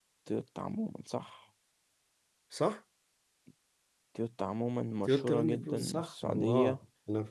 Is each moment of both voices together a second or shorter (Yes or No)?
No